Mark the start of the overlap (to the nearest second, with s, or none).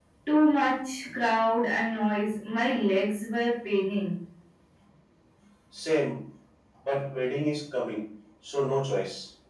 none